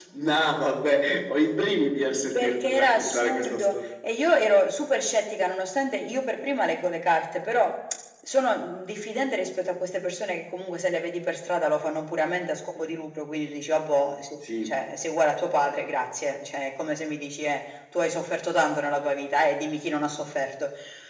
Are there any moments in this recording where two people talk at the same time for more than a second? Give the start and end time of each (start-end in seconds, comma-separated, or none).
2.3-3.9